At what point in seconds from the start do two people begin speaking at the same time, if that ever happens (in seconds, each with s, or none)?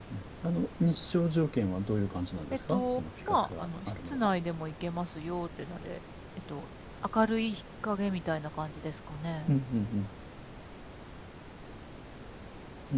2.7 s